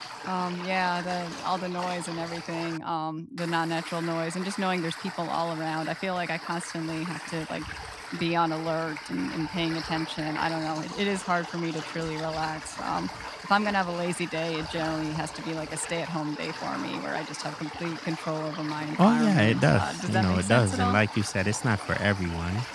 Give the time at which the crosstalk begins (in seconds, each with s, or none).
19.0 s